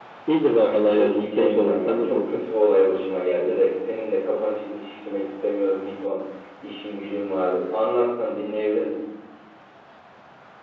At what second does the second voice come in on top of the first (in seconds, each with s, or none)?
0.6 s